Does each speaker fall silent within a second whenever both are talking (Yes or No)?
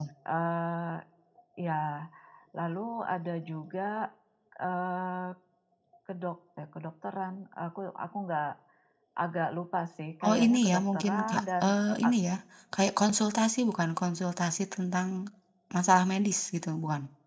No